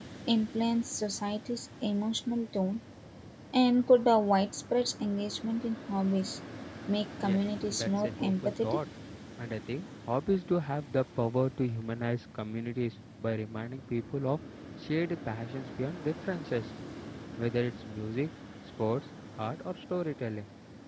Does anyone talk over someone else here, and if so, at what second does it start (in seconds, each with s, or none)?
7.2 s